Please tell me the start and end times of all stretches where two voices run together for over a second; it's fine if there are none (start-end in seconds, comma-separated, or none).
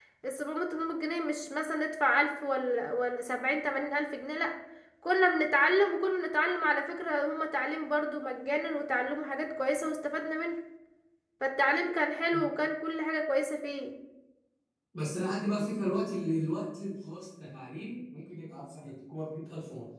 none